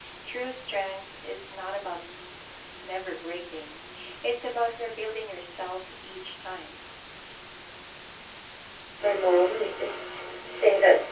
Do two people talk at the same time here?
No

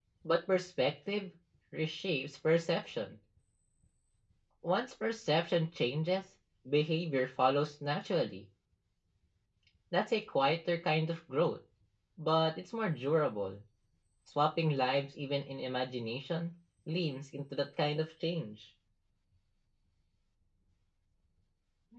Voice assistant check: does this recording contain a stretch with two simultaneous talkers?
No

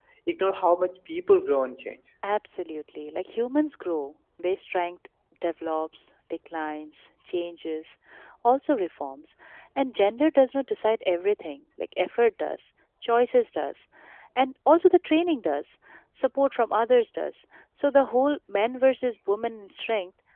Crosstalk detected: No

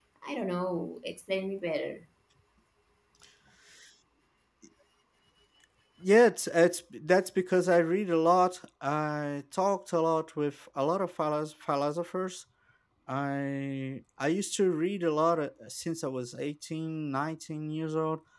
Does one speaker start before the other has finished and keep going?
No

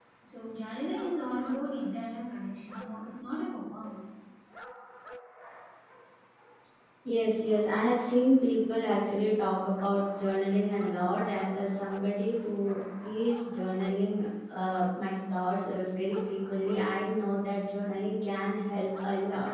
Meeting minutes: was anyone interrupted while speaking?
No

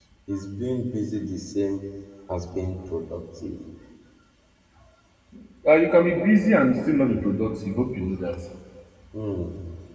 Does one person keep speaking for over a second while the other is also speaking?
No

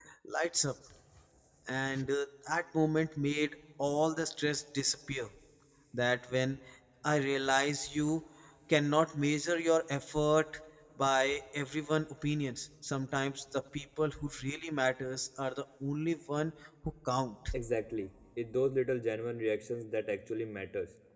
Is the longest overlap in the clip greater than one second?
No

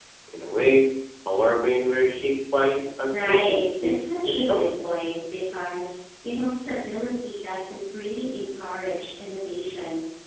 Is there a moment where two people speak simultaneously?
Yes, from 3.1 s

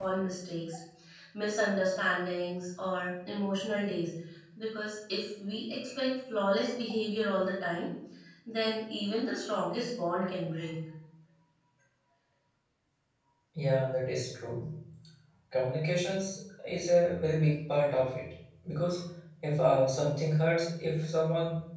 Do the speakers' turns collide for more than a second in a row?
No

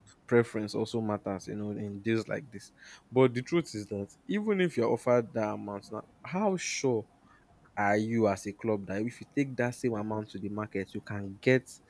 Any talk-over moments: No

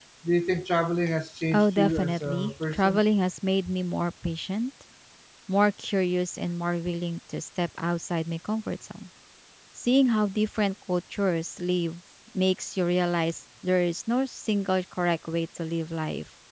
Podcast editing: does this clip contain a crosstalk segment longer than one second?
Yes, from 1.5 s

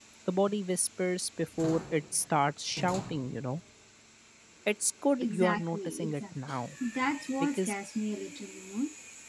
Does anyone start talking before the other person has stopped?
Yes, from 5.2 s

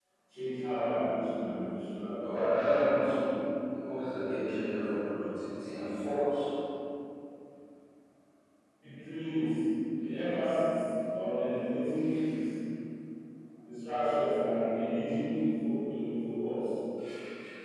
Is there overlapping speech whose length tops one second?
No

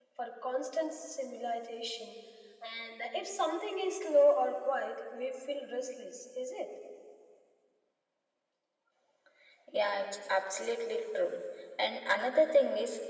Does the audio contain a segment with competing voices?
No

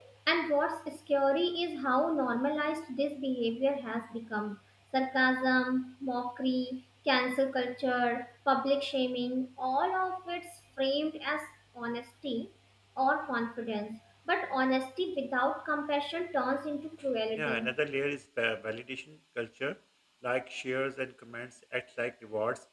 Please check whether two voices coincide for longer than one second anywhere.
No

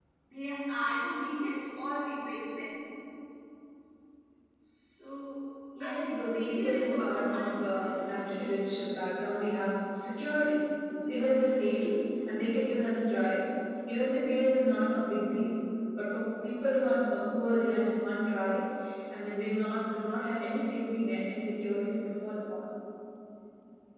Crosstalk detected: Yes, from 5.8 s

